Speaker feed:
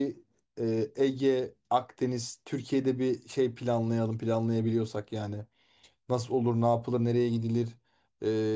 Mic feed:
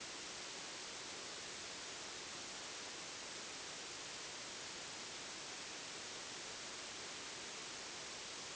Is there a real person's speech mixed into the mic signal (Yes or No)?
No